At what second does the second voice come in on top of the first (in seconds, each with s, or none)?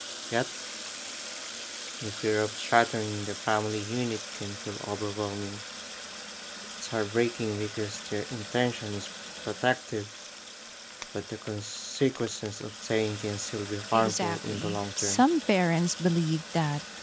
13.9 s